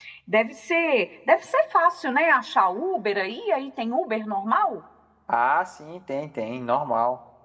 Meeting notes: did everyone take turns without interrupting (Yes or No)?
Yes